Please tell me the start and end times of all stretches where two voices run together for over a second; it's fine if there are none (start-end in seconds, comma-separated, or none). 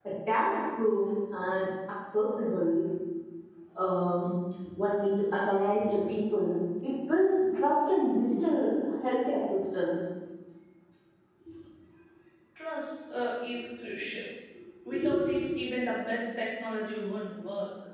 none